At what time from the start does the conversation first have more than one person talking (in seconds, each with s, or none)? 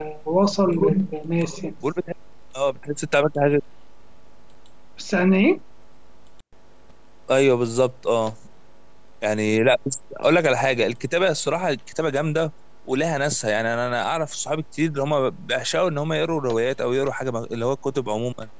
none